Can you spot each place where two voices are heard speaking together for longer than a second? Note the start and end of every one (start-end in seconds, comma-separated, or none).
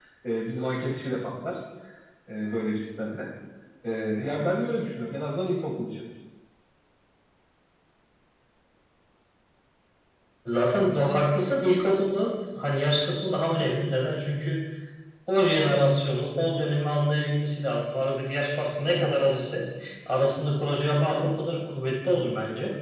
none